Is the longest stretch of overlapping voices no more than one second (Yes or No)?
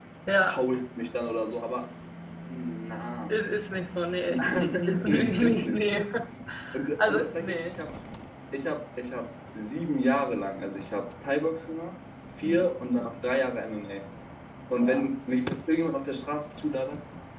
No